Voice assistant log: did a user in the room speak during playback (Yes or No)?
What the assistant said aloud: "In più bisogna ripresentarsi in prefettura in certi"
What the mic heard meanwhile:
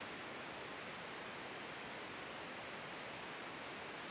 No